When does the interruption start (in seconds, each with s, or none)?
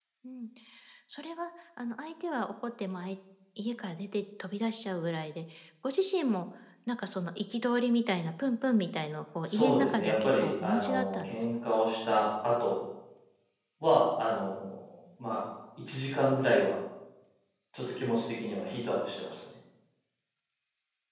9.5 s